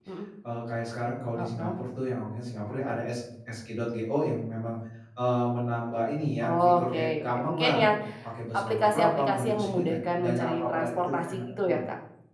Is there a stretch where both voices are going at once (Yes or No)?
Yes